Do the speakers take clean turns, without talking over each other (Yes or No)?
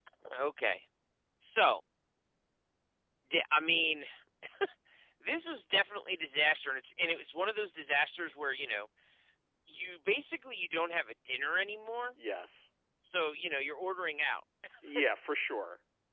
Yes